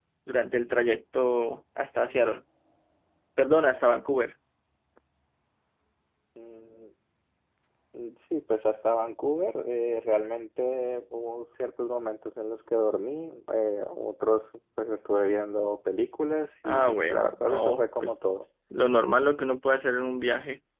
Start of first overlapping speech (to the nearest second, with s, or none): 17 s